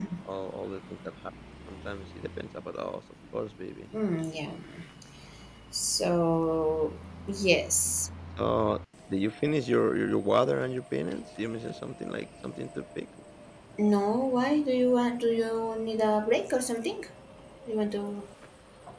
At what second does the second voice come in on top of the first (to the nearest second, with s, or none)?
none